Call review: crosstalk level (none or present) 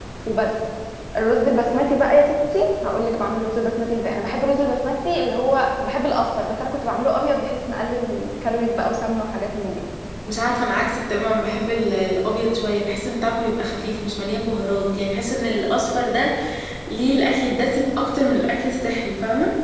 none